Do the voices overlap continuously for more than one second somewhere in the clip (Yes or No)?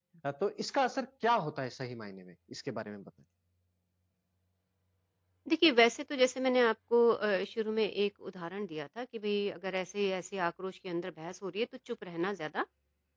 No